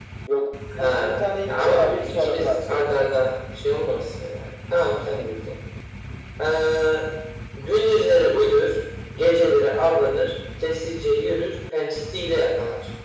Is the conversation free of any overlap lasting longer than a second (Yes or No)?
No